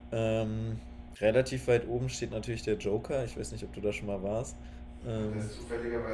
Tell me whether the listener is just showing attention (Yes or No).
No